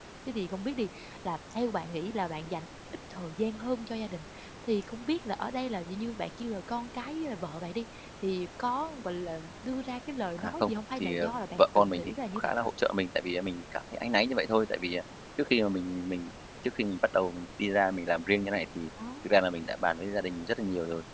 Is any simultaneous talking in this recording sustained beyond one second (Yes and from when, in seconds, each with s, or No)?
Yes, from 10.4 s